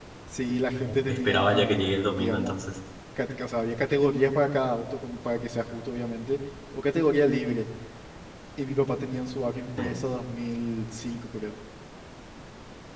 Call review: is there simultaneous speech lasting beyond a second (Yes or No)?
Yes